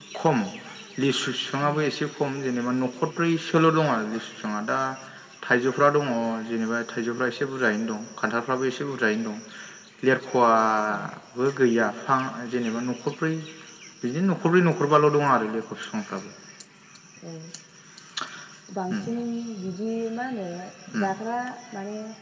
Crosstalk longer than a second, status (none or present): none